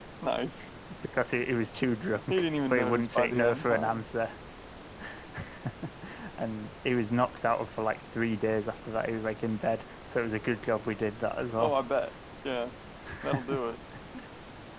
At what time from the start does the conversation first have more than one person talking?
2.3 s

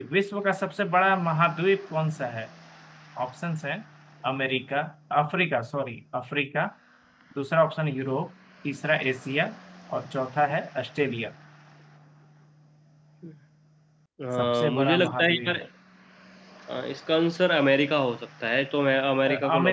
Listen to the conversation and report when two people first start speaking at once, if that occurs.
14.4 s

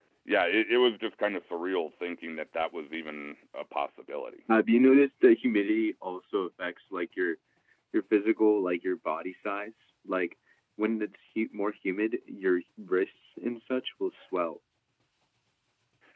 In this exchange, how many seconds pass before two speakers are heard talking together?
none

